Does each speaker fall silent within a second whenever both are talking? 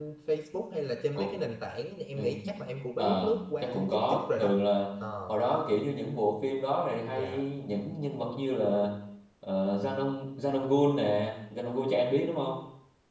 No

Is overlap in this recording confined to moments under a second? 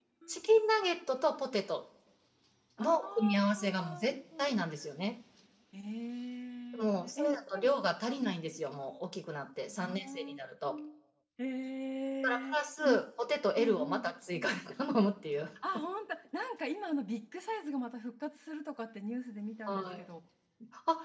No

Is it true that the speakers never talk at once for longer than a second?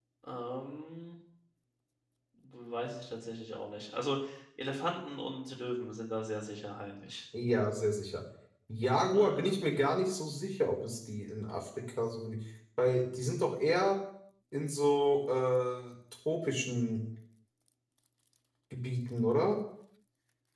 Yes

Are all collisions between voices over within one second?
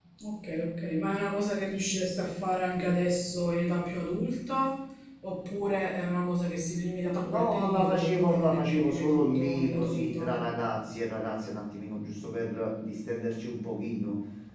No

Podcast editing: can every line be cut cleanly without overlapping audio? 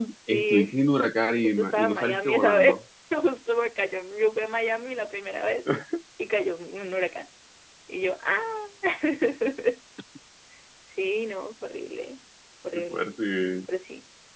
No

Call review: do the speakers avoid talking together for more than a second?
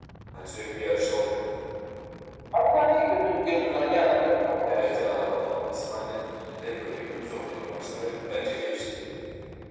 Yes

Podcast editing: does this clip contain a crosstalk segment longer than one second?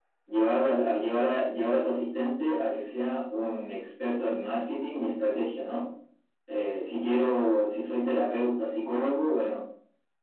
No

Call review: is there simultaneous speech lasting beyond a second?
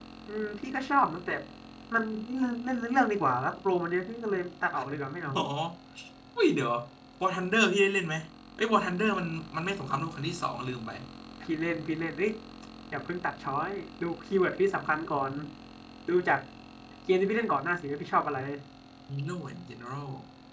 No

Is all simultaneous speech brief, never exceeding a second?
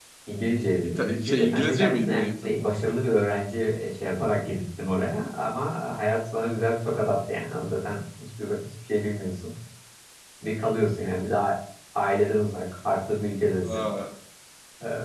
No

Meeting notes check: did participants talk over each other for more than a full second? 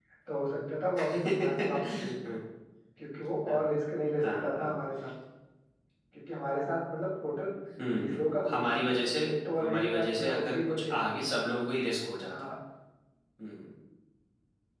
Yes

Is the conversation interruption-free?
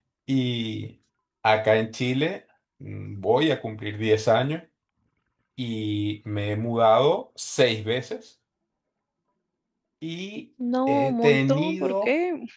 No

